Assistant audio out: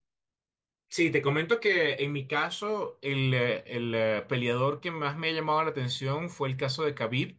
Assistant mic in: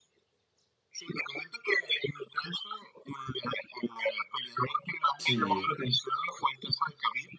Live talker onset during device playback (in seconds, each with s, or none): 5.2 s